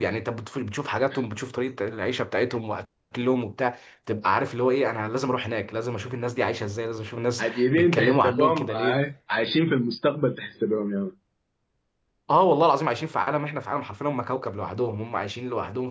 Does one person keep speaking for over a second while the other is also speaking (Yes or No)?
Yes